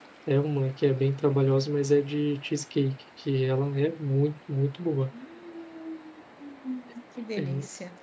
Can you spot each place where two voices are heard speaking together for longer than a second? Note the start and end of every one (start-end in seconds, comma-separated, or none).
none